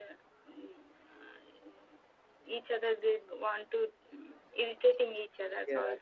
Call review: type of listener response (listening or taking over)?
listening